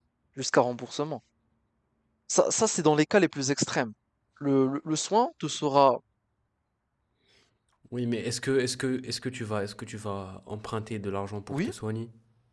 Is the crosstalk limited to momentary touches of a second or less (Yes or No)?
Yes